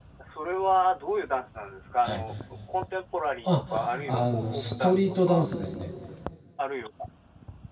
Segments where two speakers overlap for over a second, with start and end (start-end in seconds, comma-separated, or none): 4.0-5.5